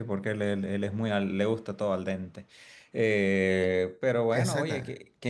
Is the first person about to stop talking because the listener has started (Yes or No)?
No